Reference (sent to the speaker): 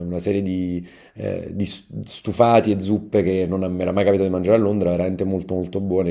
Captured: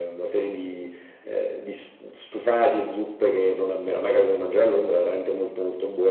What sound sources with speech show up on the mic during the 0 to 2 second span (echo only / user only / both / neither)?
echo only